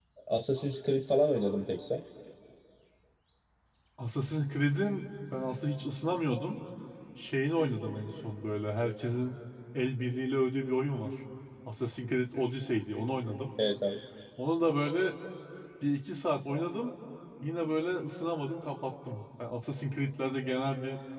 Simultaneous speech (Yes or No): No